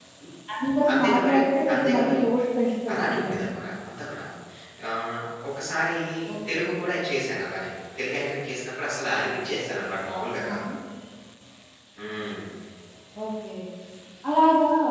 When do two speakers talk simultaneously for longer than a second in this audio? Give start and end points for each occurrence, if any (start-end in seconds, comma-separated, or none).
none